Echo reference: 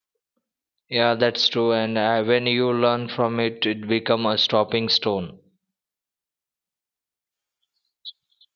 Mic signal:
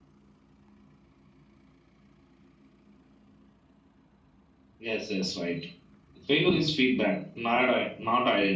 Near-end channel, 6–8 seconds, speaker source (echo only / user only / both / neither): user only